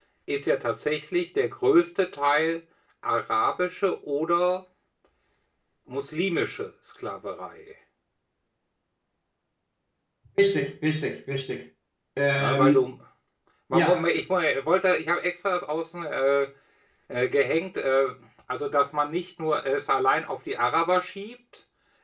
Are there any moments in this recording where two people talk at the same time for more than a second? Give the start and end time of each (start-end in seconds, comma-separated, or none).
none